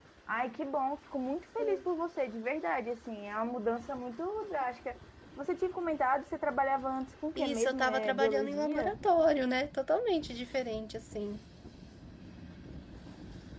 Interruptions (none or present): present